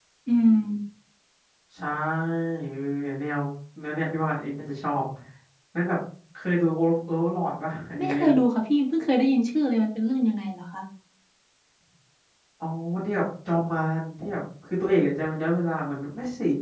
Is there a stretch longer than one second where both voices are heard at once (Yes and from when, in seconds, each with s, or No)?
No